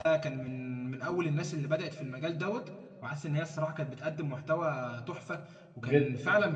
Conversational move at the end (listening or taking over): listening